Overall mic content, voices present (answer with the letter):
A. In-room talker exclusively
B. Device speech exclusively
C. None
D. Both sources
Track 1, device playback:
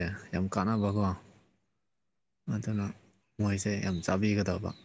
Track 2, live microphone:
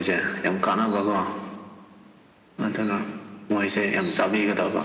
B